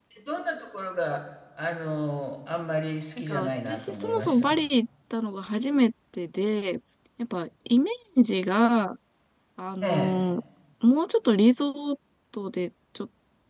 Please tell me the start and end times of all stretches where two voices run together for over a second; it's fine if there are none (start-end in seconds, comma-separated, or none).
3.2-4.6